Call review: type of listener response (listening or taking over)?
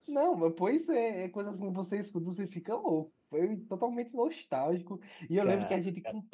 listening